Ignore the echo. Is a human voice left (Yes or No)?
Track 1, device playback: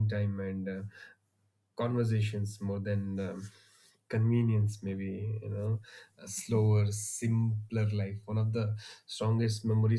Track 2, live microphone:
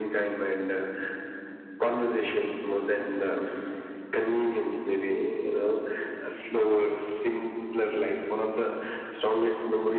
No